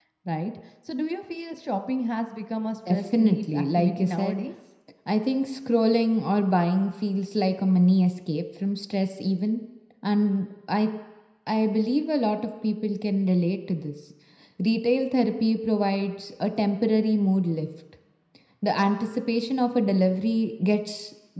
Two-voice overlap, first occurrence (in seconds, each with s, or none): 2.9 s